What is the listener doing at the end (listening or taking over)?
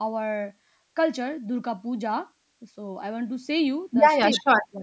taking over